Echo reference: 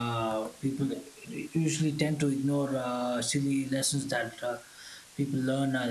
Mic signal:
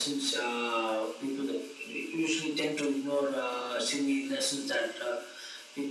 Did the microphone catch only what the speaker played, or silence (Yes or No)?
Yes